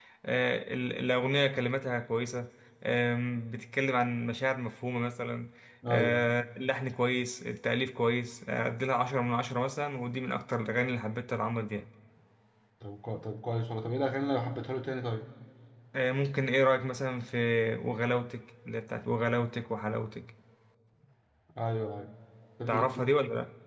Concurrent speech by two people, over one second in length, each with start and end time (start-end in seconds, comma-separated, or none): none